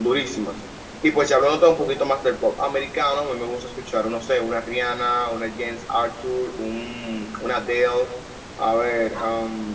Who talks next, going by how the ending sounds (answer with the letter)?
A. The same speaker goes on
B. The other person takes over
A